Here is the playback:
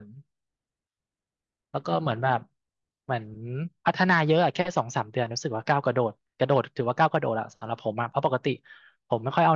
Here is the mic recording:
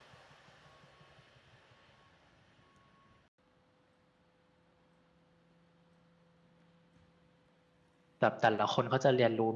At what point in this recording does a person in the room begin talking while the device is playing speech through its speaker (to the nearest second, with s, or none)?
8 s